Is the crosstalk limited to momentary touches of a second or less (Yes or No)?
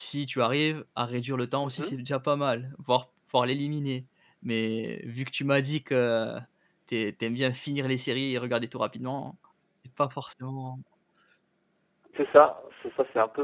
Yes